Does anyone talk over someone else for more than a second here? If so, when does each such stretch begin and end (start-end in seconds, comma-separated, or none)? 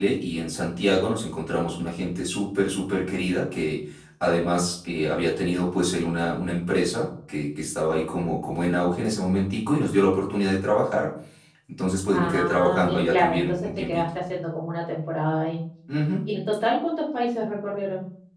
12.1-14.1